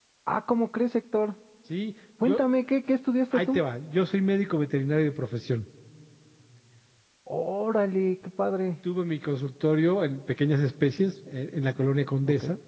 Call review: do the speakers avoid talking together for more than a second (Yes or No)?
Yes